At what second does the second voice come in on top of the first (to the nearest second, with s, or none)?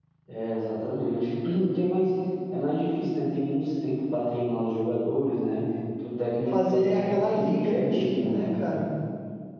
6 s